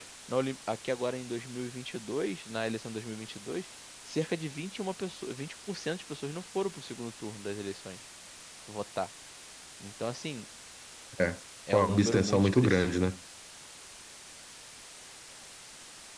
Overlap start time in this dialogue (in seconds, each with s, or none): 11.7 s